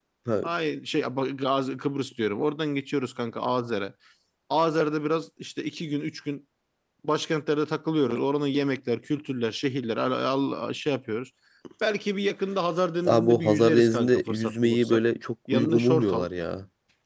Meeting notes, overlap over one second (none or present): present